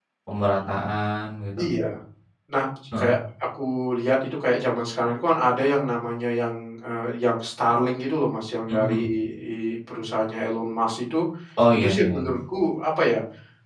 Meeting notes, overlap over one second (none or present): none